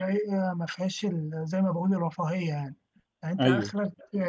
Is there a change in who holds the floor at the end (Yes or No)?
No